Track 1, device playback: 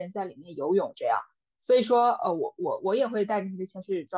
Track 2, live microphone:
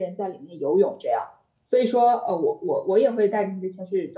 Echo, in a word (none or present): present